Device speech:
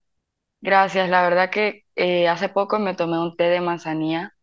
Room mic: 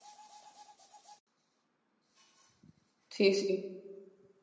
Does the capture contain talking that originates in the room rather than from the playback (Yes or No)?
Yes